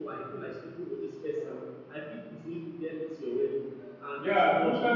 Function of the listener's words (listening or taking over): taking over